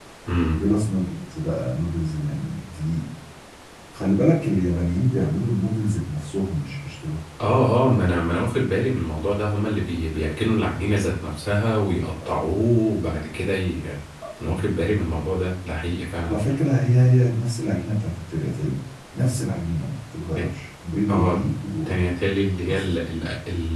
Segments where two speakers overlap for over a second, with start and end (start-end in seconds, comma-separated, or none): none